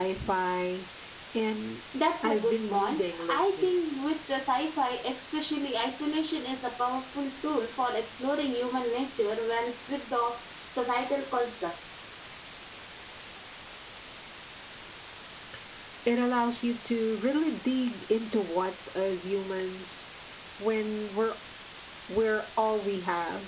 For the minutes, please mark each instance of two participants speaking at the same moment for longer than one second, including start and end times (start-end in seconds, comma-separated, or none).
2.2-3.8